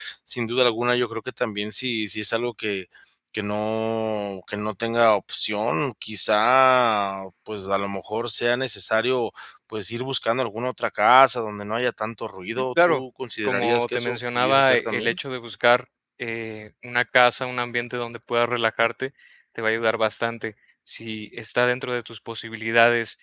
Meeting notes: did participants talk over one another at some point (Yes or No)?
Yes